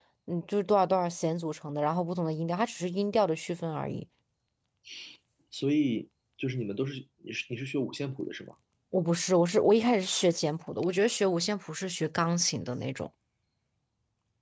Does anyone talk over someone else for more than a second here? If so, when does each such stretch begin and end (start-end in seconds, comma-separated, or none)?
none